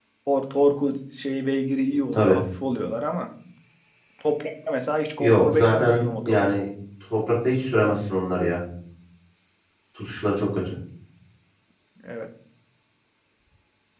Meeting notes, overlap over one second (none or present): present